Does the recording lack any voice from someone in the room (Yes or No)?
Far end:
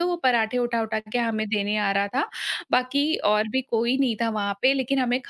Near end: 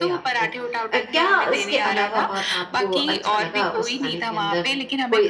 No